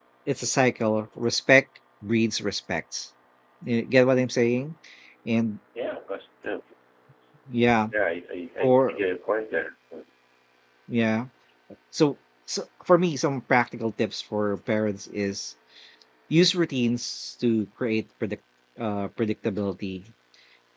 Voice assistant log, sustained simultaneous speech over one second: none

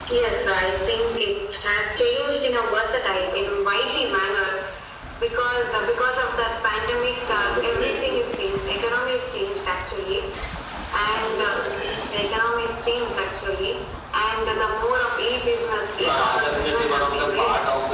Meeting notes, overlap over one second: present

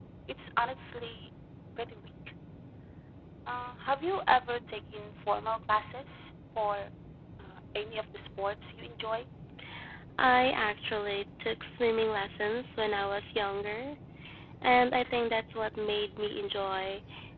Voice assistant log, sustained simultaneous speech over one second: none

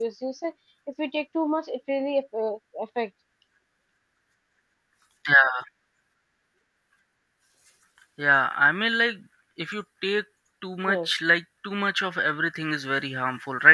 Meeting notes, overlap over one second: none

